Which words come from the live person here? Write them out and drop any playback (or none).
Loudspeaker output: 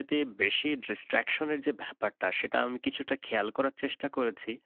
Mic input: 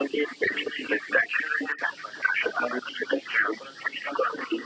none